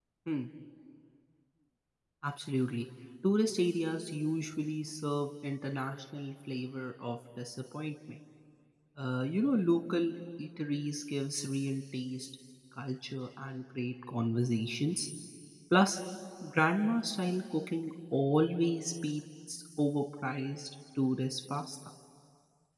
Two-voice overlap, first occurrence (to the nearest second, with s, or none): none